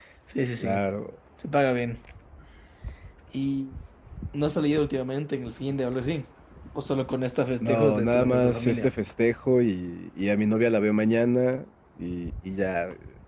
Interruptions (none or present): present